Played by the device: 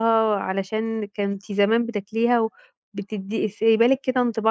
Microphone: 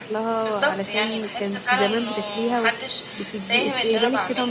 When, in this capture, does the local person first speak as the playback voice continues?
0.5 s

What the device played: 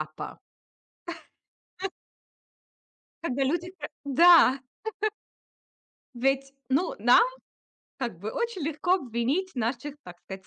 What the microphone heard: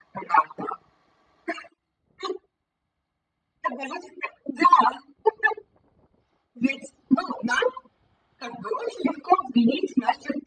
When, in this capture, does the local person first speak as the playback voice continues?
none

